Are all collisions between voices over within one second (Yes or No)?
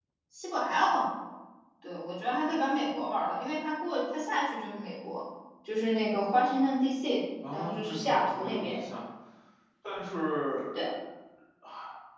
No